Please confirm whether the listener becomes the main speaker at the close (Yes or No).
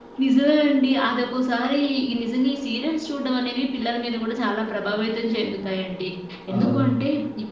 No